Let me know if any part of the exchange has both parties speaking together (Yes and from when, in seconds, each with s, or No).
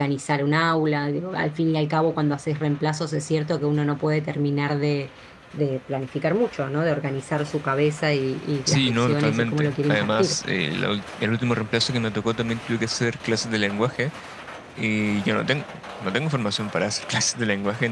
Yes, from 8.7 s